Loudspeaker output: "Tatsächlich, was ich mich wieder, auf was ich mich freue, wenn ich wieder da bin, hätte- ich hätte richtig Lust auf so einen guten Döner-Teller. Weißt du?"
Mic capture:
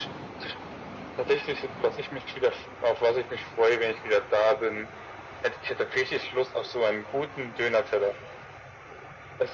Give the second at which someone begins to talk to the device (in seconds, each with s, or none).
none